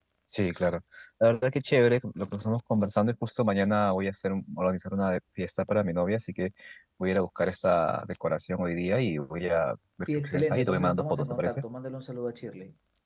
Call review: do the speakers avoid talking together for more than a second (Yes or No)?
No